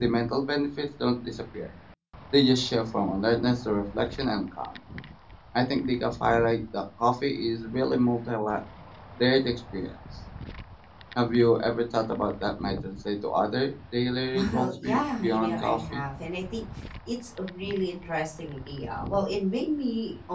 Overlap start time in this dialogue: 14.3 s

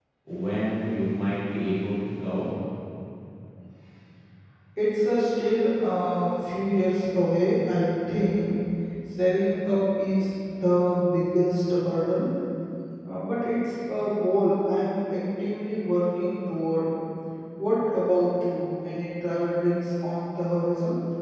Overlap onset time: none

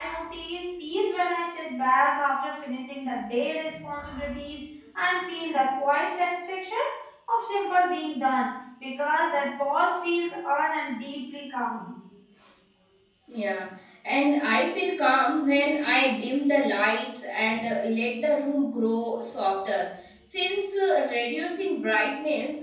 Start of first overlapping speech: none

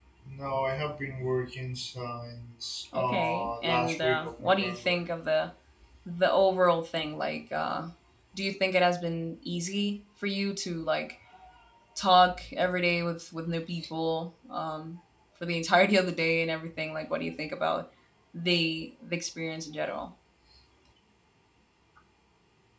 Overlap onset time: 2.9 s

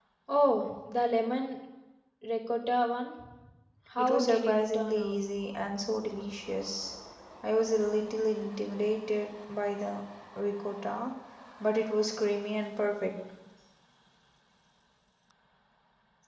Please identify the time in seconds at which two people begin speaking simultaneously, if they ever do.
4.0 s

